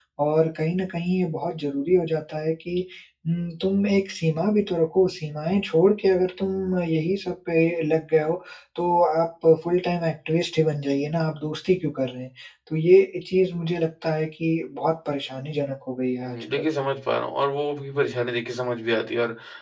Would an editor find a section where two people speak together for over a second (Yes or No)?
No